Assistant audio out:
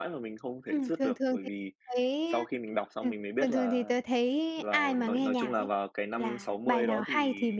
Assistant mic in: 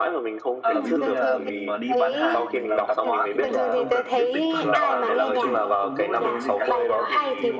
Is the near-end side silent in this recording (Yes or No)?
No